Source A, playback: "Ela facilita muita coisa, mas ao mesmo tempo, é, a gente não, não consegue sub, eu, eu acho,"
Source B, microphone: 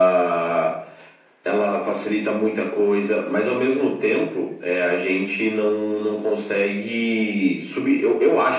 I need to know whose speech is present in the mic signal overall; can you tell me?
echo only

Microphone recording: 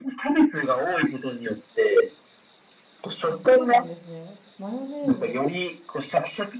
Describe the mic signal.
both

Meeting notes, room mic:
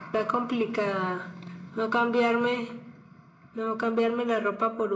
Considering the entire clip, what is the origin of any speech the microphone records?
echo only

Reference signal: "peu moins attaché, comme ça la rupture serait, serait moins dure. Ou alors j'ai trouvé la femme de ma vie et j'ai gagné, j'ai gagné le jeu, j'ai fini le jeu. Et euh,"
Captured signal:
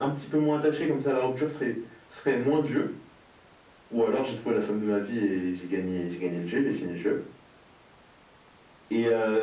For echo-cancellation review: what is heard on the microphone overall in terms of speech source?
echo only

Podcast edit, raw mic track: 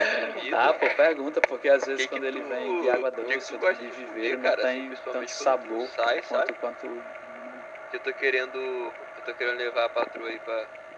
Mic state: echo only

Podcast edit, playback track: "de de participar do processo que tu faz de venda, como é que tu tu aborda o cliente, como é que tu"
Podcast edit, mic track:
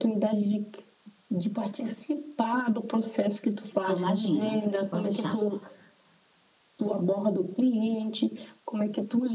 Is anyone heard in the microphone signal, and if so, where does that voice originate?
both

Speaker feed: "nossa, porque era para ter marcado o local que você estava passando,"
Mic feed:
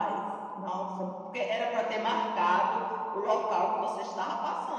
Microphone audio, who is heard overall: echo only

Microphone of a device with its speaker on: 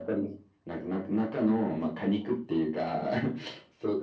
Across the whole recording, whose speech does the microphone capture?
echo only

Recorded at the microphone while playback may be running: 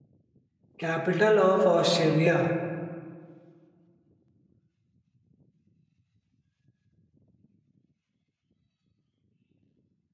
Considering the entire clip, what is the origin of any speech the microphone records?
user only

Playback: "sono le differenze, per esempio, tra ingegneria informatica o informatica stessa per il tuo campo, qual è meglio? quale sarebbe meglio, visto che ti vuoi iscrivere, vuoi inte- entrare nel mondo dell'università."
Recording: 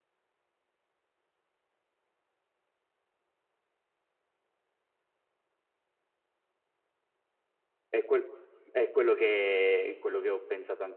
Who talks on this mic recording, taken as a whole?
user only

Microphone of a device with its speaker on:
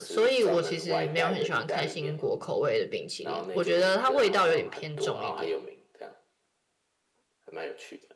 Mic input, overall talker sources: both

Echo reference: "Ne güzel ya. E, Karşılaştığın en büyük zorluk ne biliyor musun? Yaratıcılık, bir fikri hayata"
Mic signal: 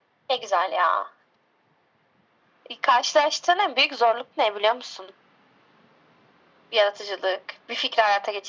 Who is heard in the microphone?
echo only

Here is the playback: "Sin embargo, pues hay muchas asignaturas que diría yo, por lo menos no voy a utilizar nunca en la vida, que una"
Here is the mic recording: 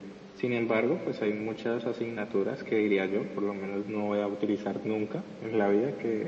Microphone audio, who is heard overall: echo only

